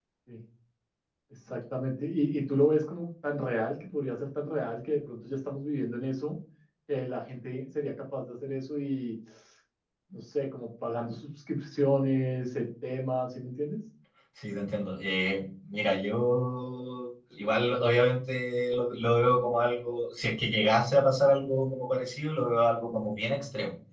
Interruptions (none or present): none